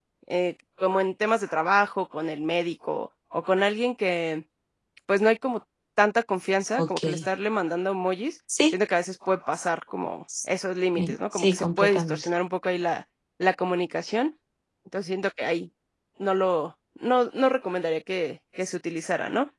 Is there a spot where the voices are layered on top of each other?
Yes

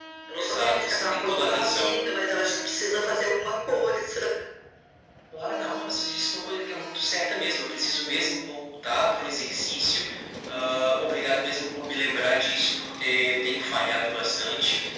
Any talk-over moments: Yes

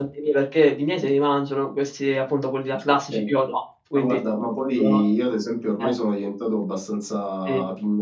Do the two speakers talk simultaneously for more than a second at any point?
No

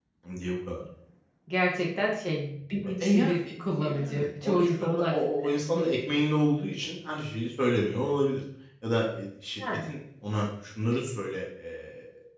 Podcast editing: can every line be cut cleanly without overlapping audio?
No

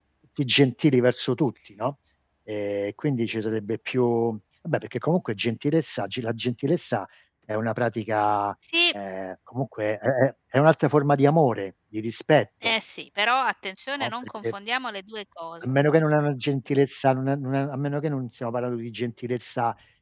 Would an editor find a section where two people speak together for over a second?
No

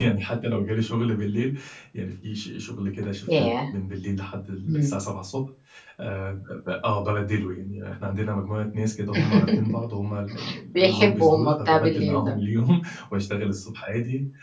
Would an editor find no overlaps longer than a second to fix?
No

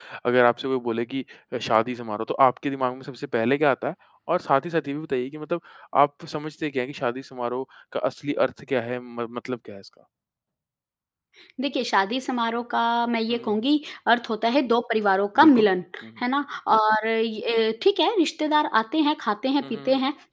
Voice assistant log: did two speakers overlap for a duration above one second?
No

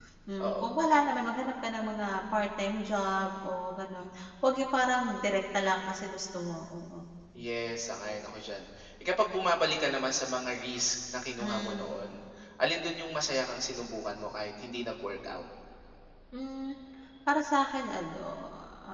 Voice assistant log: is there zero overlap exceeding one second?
Yes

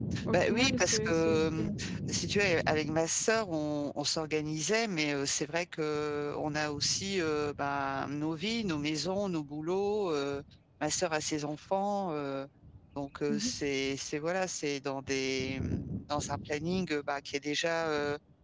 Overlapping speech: Yes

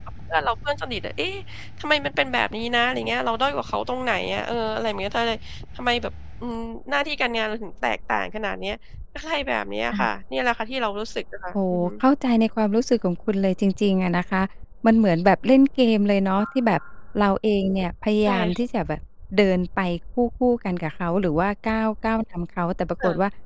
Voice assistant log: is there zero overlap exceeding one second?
Yes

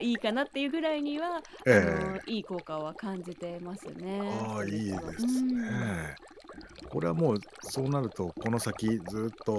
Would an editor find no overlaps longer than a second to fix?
No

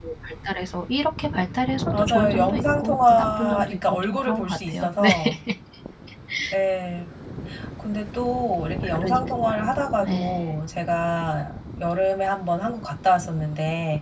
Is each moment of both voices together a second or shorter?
No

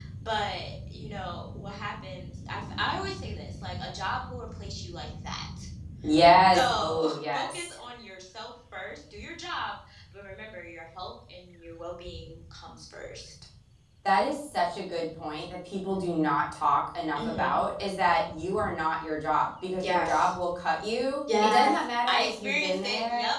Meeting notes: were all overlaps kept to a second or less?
No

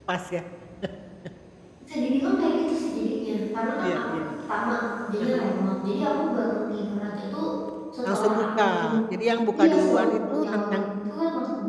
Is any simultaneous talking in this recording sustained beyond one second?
Yes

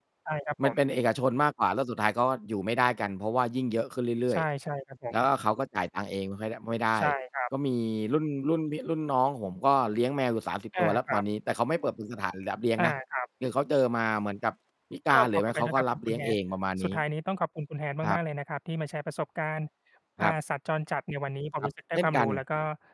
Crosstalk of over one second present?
Yes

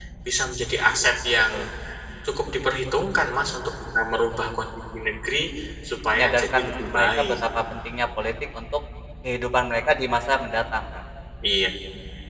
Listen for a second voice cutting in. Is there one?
Yes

